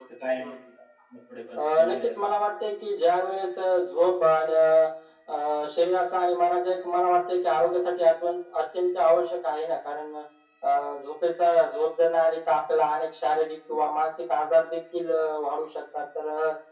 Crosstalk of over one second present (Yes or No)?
No